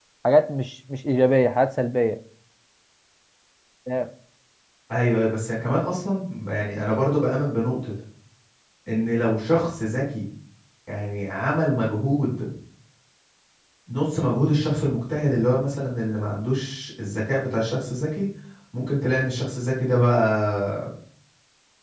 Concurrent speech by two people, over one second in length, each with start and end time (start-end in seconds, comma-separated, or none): none